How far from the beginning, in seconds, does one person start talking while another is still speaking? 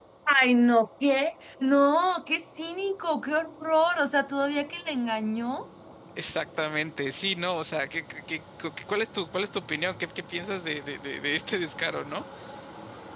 none

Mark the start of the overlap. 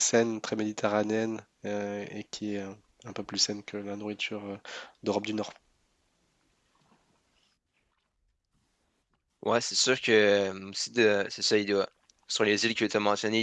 none

